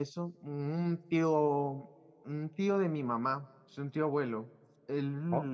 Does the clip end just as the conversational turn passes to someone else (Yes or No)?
No